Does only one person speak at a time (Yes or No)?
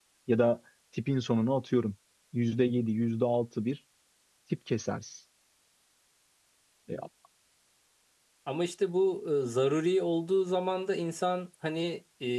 Yes